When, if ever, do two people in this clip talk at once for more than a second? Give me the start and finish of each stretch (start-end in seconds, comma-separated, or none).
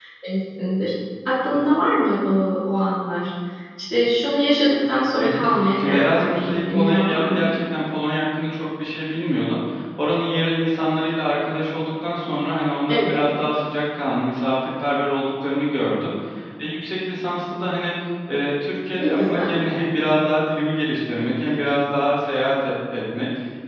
5.2-7.5